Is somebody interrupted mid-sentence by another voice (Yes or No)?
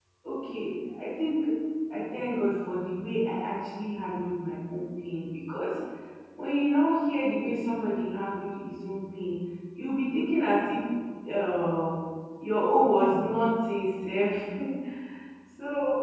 No